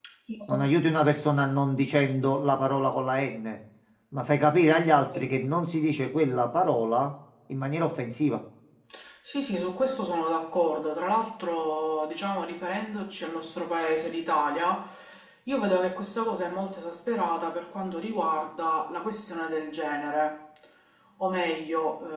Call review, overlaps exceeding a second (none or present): none